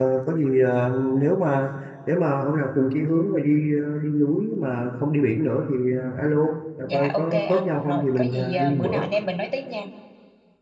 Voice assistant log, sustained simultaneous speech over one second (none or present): present